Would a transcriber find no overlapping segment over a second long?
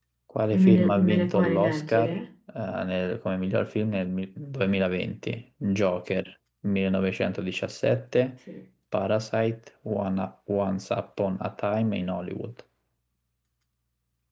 No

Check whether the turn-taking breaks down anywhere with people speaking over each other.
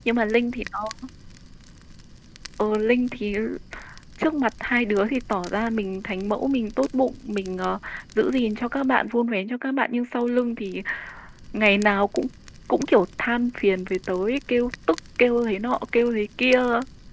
No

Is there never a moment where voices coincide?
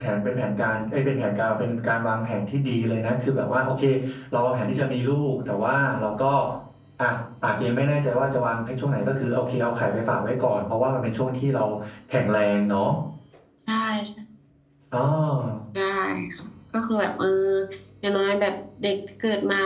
Yes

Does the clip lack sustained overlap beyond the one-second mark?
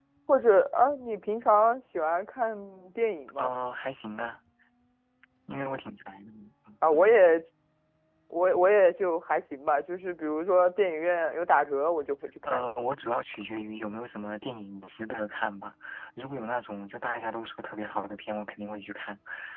Yes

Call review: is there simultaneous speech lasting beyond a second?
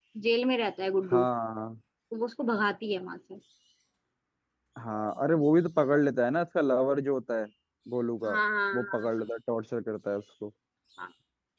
No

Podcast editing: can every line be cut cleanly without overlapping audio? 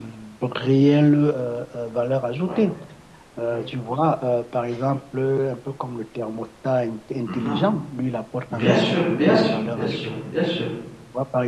No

